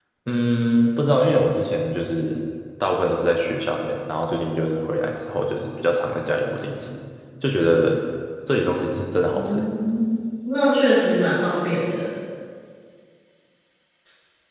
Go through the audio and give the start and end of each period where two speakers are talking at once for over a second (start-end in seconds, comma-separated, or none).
none